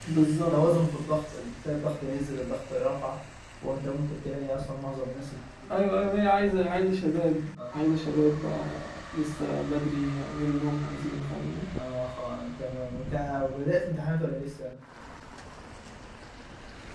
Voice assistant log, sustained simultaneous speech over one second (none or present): none